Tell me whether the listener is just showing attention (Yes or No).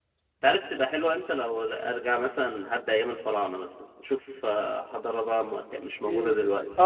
No